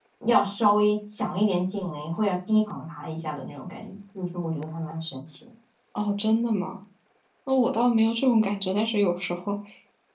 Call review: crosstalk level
none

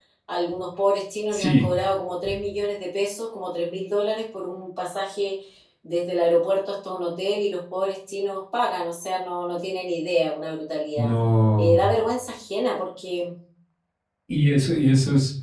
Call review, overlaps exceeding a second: none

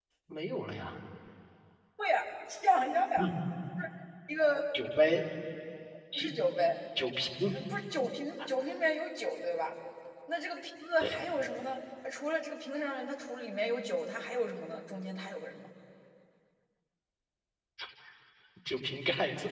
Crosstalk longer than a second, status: none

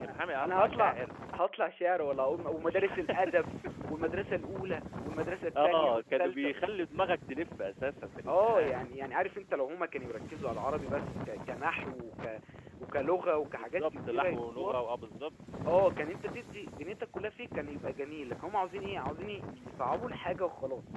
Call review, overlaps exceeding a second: present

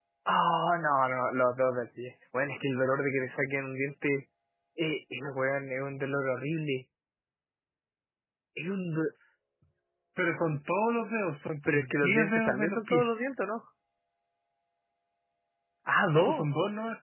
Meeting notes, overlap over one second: present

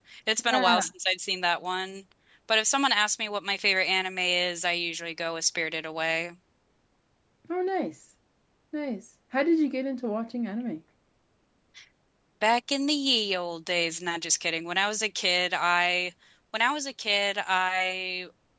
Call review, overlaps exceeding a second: none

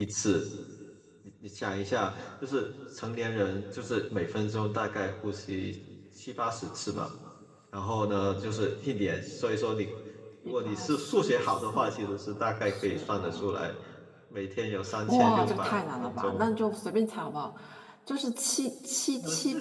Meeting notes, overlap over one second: present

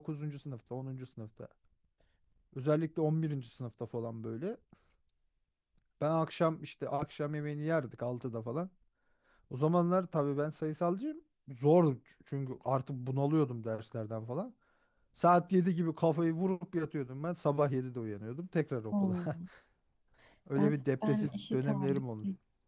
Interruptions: present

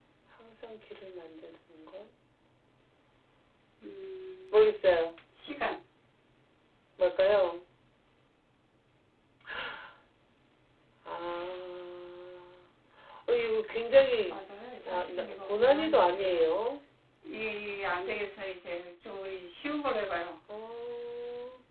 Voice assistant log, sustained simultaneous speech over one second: present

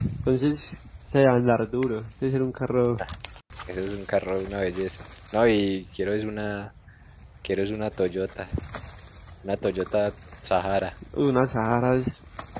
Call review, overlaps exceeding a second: none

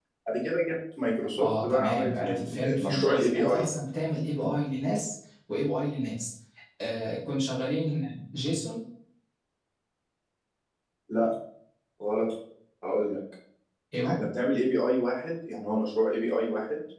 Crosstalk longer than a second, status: present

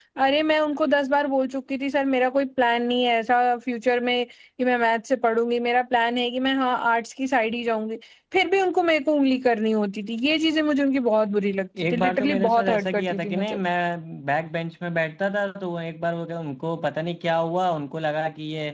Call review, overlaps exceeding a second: present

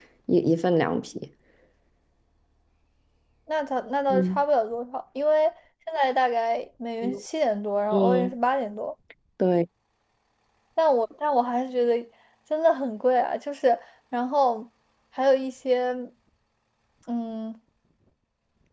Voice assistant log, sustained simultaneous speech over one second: none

